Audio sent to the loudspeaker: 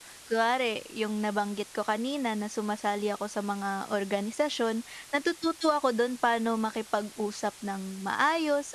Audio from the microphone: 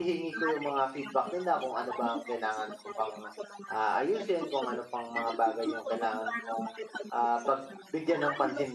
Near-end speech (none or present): present